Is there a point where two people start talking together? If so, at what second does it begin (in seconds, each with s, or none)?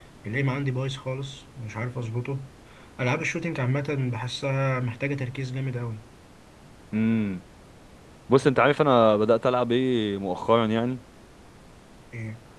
none